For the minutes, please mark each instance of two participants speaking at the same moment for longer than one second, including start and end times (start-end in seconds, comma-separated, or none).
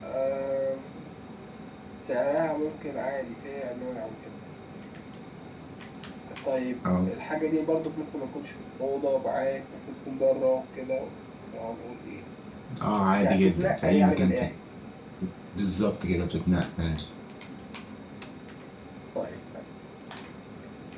13.2-14.5